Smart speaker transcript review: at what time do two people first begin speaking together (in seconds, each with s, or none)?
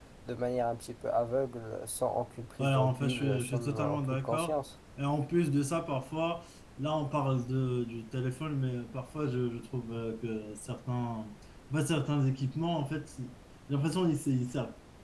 2.6 s